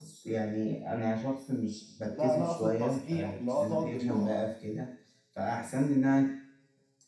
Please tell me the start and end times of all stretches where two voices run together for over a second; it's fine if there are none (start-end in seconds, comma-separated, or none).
2.2-4.3